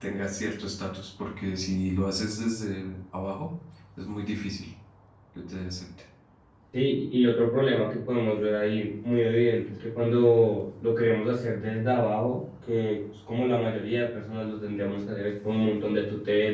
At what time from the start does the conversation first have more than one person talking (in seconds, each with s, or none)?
none